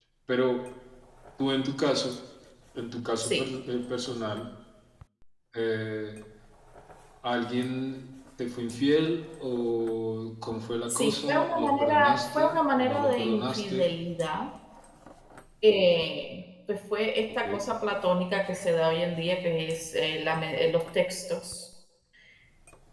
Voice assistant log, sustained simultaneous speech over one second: present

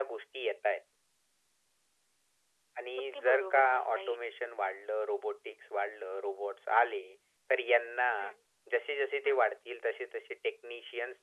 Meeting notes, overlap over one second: present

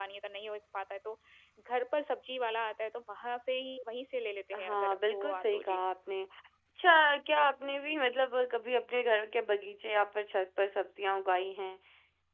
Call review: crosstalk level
present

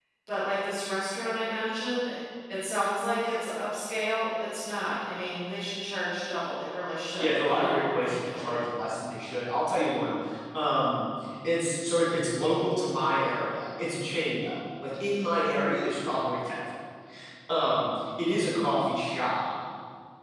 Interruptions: present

